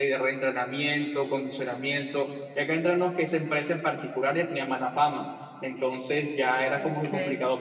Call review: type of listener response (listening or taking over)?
listening